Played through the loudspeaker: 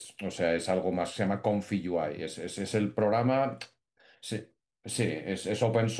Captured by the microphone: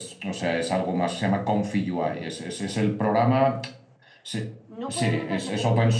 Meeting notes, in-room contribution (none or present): present